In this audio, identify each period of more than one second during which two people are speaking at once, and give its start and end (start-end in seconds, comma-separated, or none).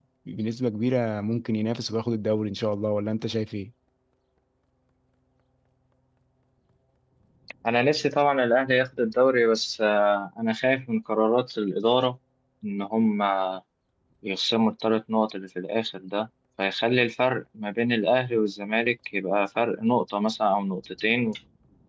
none